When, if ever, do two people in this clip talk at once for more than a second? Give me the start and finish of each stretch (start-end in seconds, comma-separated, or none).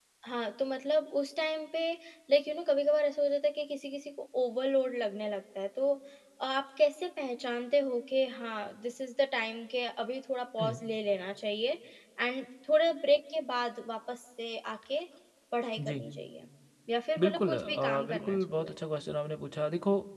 17.2-18.8